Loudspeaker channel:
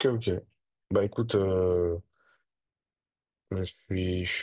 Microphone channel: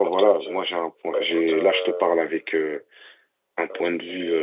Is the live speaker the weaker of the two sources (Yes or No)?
No